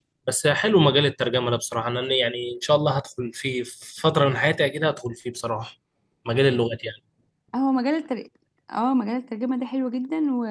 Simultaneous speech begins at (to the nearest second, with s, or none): none